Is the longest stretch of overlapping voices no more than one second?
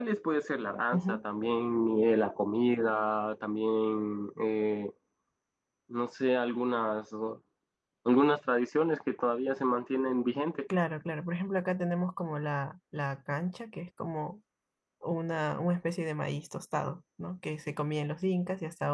Yes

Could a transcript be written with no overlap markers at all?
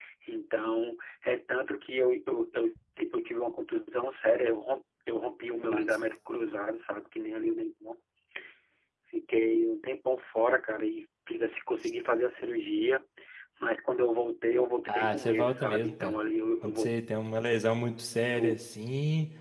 No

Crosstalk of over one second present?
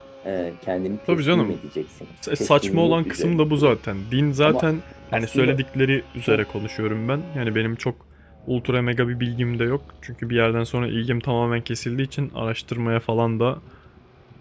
Yes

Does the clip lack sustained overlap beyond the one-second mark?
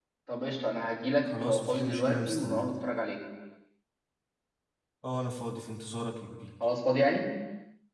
No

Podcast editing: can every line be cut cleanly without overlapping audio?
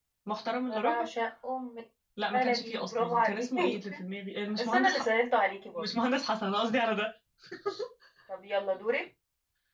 No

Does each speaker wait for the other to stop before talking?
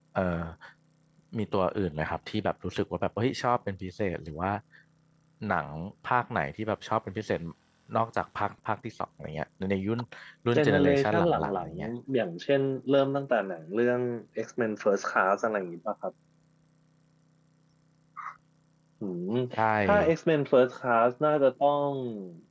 No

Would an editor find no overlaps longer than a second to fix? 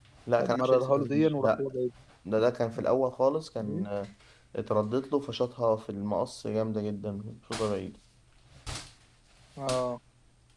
No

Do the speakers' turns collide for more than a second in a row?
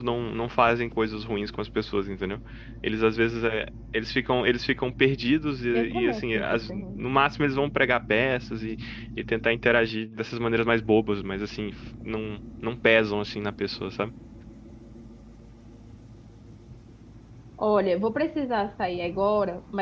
Yes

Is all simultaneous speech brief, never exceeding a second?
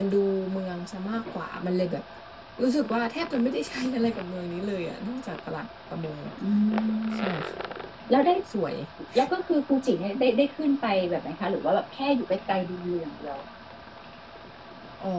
Yes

